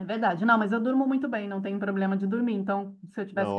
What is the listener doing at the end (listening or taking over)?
listening